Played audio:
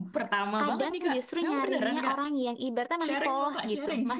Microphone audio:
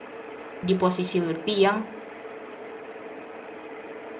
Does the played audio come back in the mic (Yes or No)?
No